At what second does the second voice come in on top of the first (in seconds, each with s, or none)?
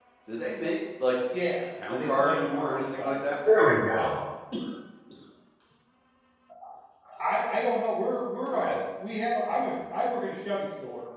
1.9 s